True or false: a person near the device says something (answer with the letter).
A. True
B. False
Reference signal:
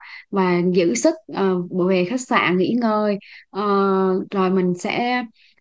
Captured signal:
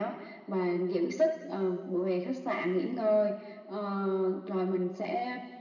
B